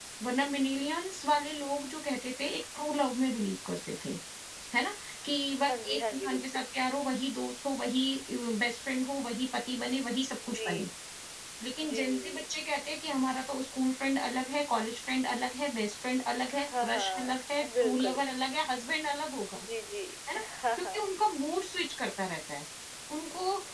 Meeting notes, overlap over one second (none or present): present